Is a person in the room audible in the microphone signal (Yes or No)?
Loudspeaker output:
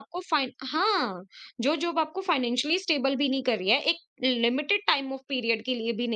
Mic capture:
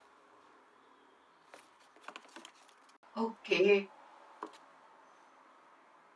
Yes